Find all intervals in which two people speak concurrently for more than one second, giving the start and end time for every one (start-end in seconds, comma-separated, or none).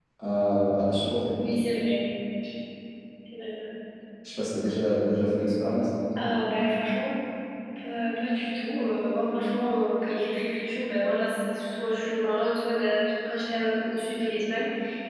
none